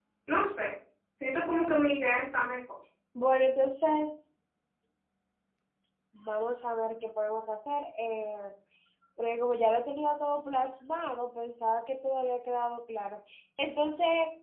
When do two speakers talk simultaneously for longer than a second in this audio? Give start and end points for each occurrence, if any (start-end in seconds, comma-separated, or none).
none